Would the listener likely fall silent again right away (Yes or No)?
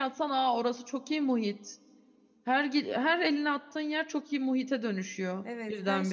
No